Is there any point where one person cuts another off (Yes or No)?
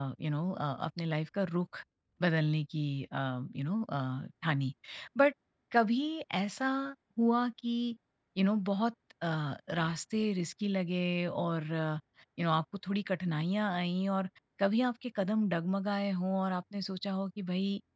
No